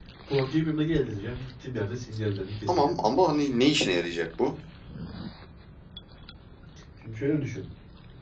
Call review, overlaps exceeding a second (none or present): none